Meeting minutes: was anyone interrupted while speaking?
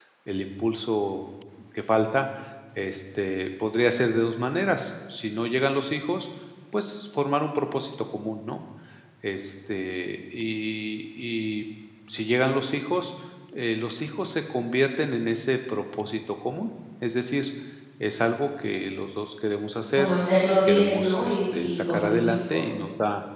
Yes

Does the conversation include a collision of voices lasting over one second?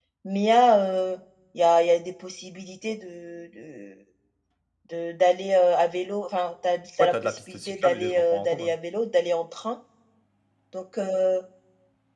Yes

